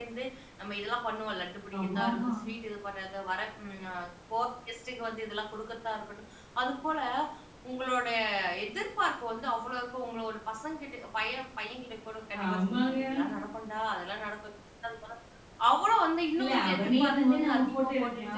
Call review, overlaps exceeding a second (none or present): present